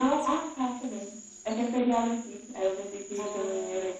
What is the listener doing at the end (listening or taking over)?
taking over